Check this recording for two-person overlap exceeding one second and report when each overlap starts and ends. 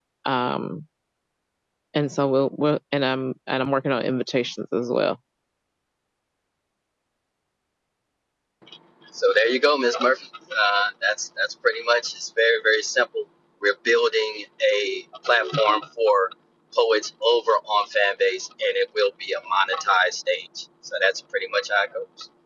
none

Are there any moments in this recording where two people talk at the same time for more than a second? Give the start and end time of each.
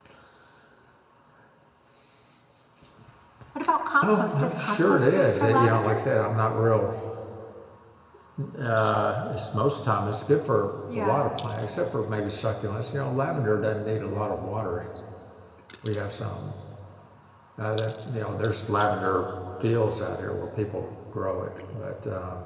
4.0-6.0

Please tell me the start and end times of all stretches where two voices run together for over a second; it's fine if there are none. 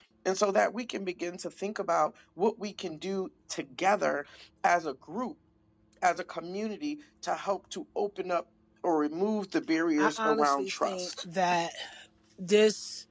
10.0-11.2

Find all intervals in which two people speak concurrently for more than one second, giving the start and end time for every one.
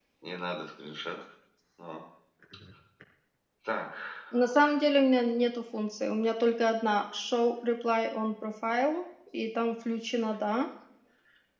none

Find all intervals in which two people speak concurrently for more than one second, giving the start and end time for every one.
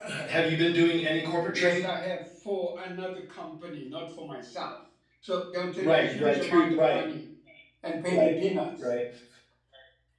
5.8-7.0

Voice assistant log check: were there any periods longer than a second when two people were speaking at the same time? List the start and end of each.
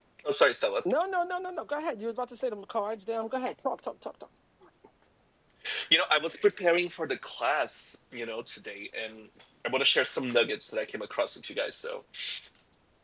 none

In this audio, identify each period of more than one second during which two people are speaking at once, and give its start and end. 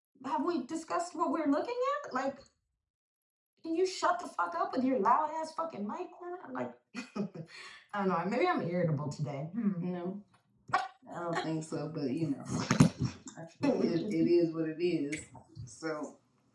none

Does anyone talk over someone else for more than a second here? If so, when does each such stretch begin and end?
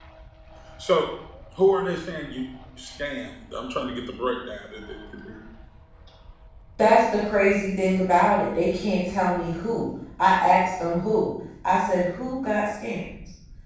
none

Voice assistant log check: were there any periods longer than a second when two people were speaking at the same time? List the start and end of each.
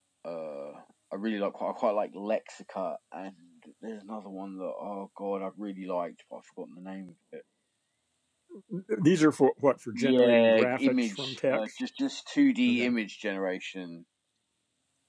9.9-11.7

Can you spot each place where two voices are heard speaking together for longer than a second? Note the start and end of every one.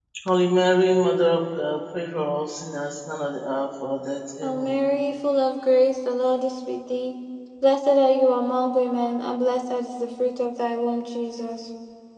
none

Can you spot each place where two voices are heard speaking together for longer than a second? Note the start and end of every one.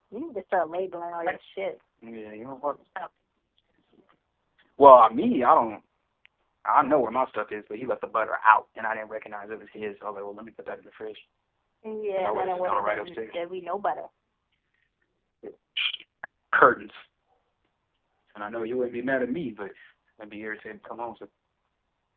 12.2-13.4

